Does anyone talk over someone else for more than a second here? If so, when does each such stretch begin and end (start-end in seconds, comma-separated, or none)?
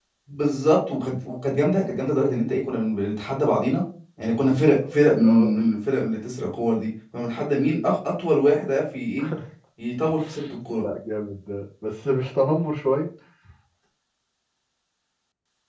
none